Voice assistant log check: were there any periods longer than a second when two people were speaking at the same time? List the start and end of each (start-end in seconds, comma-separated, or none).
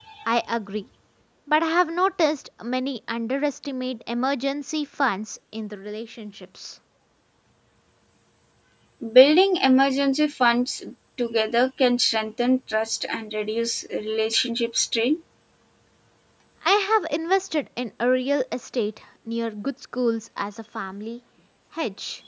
none